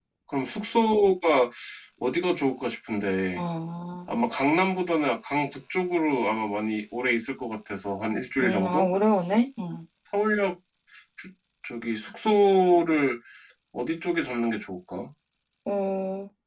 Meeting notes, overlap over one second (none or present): none